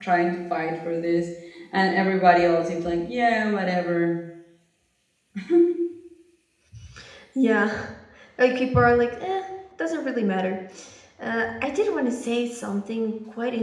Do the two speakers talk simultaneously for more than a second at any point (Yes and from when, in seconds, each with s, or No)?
No